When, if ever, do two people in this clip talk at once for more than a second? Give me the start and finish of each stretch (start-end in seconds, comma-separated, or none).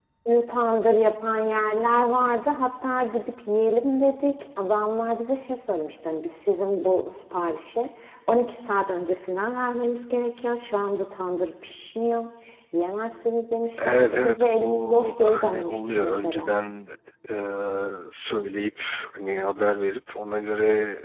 13.8-16.5